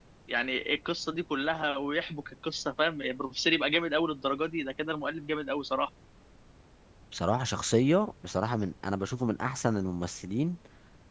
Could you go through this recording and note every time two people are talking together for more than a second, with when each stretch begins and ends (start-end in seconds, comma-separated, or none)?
none